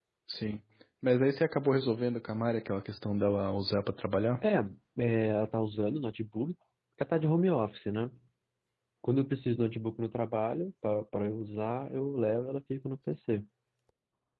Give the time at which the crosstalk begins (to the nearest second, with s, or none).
none